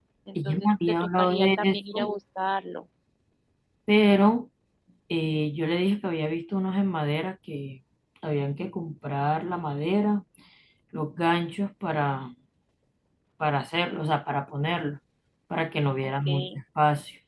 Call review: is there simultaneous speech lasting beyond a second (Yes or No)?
Yes